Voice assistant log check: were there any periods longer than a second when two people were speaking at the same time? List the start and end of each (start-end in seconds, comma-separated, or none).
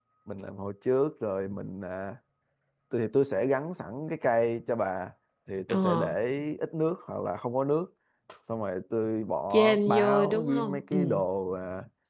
9.5-11.2